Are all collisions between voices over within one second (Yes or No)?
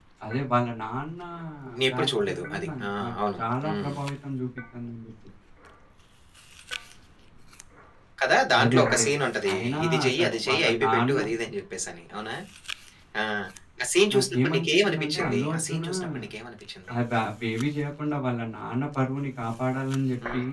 No